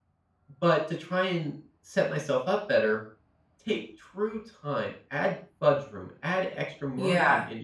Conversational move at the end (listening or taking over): listening